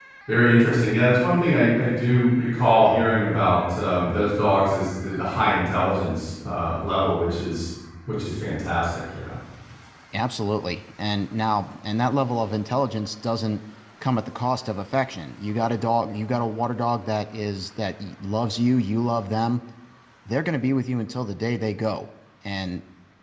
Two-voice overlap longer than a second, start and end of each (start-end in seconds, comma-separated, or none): none